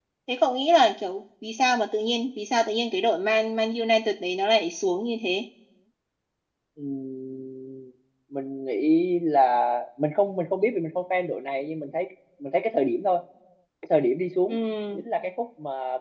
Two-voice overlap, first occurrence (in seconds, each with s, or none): none